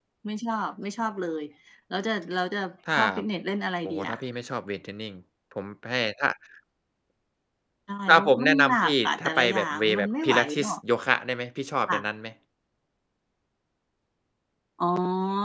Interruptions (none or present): present